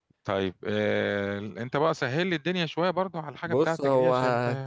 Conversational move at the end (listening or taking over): taking over